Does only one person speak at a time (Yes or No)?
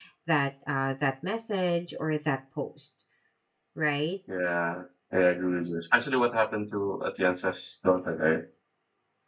Yes